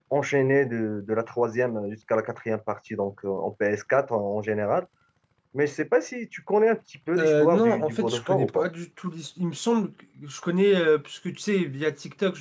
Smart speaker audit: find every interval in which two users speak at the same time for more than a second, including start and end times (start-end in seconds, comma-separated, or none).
7.2-8.7